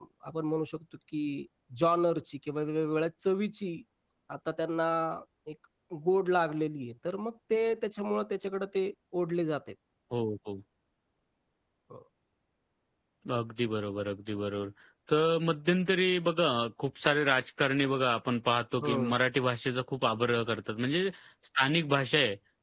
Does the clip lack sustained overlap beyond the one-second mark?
Yes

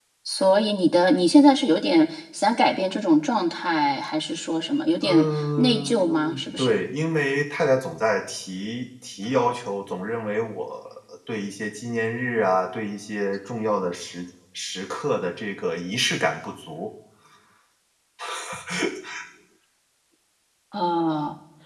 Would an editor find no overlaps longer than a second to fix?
No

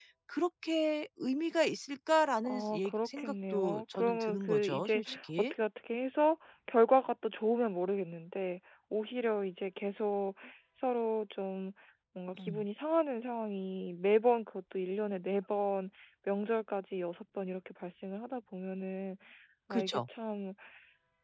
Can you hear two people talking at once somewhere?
Yes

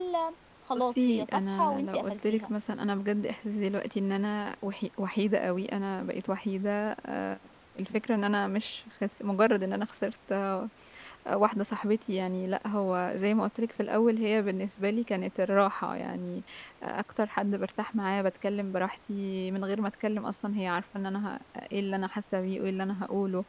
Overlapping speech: Yes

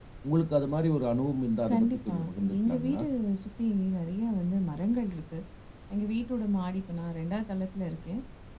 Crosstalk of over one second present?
Yes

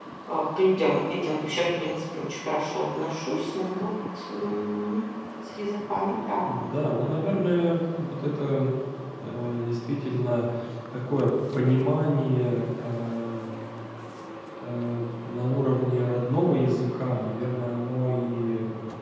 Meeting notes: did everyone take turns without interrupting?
Yes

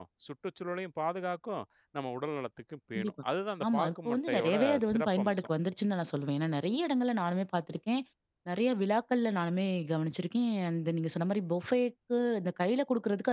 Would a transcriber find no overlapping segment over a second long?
No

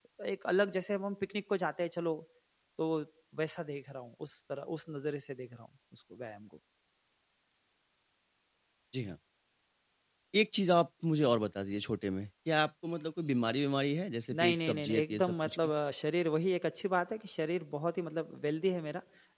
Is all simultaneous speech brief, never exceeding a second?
No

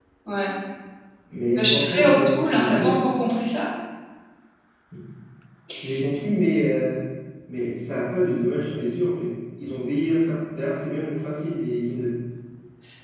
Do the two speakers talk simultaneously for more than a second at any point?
Yes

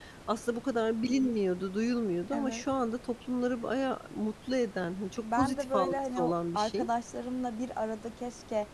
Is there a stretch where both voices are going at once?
Yes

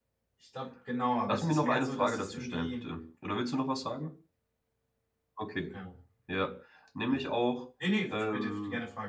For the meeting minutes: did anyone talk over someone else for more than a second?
Yes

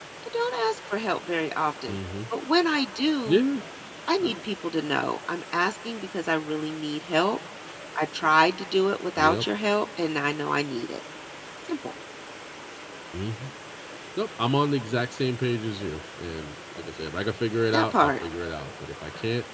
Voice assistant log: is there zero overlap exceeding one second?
Yes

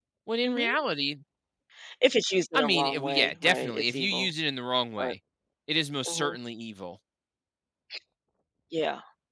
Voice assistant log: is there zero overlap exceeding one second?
No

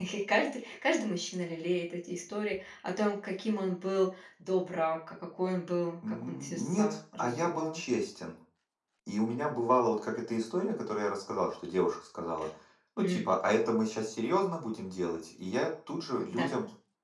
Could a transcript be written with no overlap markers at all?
No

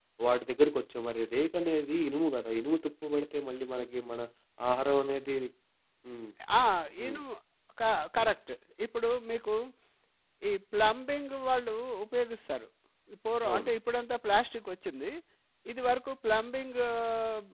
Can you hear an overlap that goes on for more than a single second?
No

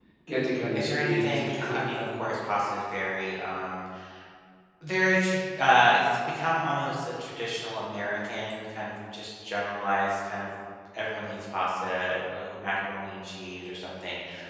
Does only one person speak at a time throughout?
No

